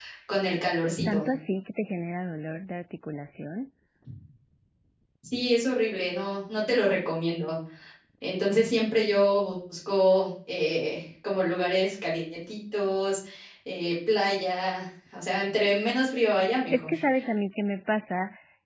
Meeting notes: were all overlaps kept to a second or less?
Yes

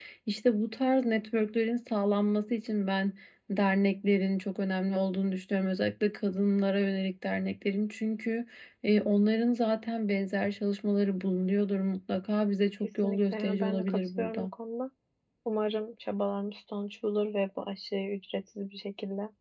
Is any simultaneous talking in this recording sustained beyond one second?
Yes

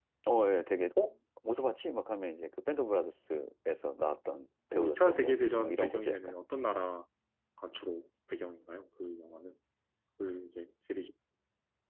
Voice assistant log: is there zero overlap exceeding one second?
No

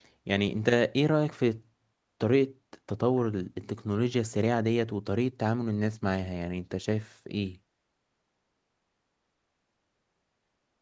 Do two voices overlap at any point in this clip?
No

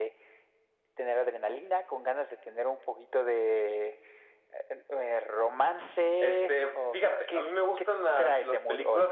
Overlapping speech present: Yes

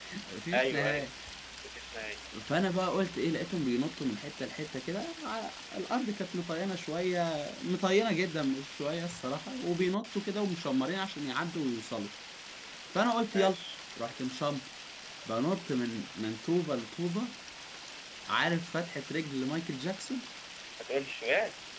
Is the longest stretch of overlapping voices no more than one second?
Yes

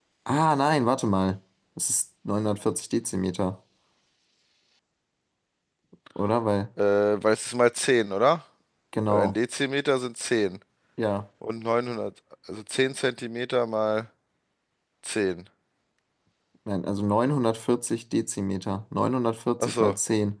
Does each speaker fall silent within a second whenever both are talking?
Yes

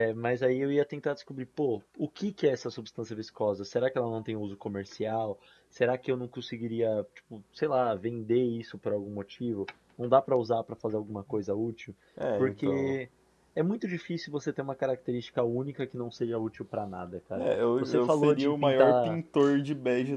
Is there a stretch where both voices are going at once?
Yes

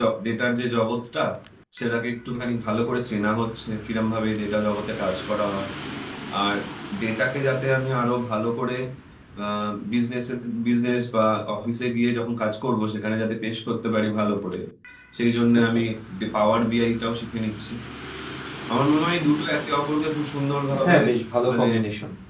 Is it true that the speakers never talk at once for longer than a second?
Yes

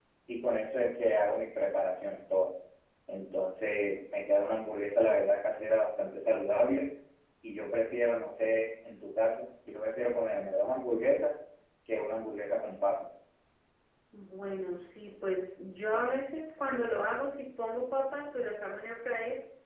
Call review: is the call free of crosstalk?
Yes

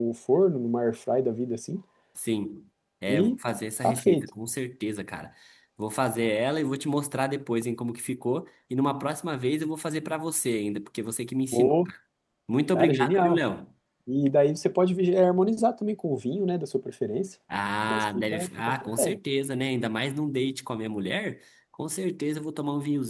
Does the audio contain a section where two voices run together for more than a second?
Yes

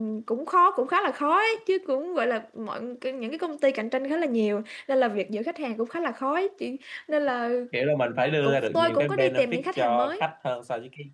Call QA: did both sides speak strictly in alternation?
No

